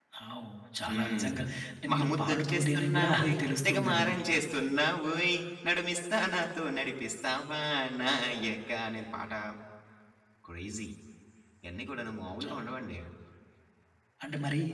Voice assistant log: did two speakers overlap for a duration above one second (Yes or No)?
Yes